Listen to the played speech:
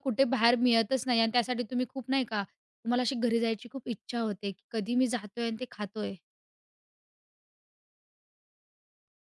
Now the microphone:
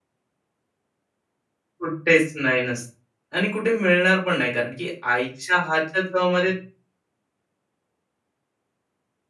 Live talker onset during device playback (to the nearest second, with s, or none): 2 s